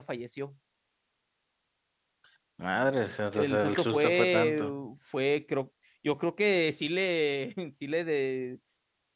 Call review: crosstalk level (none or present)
present